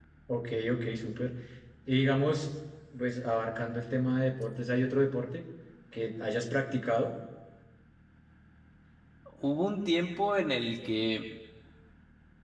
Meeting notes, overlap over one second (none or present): none